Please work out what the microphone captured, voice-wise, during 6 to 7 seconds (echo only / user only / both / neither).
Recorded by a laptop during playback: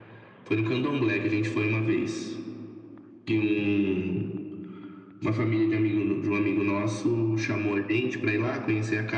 echo only